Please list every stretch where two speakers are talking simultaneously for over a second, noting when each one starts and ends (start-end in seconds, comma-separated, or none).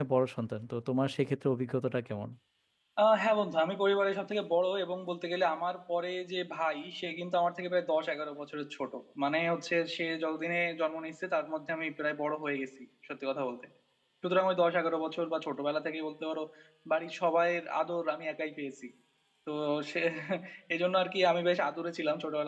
none